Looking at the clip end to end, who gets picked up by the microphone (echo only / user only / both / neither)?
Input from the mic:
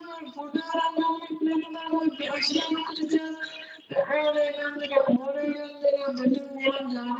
echo only